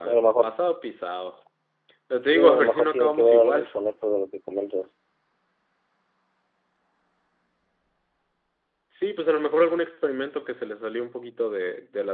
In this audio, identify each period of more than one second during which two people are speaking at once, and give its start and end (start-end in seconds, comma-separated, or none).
2.2-3.7